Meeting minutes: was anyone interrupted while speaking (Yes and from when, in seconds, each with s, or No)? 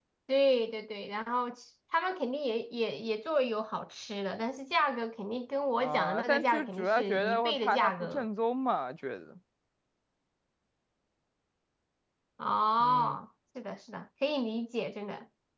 Yes, from 5.8 s